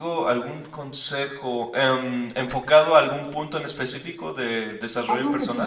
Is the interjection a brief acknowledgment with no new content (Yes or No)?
No